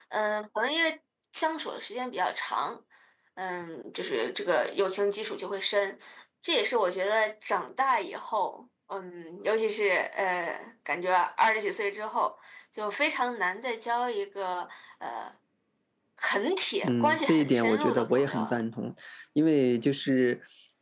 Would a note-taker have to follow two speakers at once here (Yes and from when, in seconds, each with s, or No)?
Yes, from 16.8 s